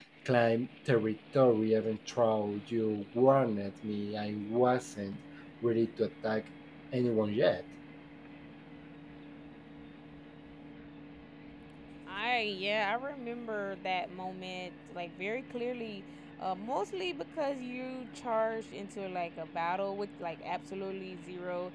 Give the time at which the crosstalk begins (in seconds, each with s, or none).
none